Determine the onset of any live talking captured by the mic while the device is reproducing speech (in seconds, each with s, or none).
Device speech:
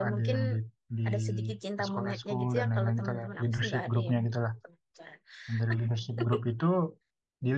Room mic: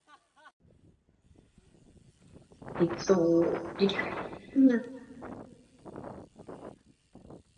2.8 s